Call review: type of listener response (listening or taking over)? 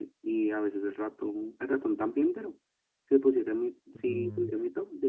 listening